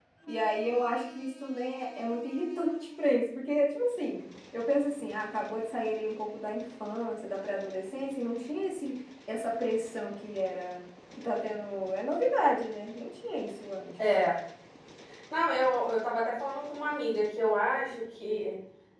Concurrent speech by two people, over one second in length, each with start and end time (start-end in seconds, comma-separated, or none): none